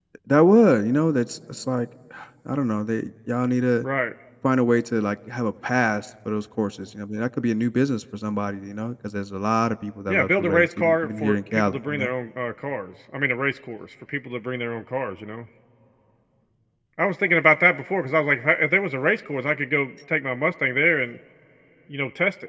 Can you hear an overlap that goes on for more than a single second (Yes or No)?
Yes